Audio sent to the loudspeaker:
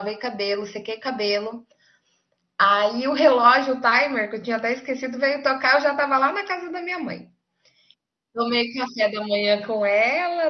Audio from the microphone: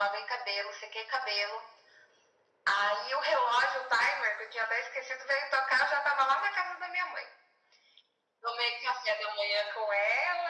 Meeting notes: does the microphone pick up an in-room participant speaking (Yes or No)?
No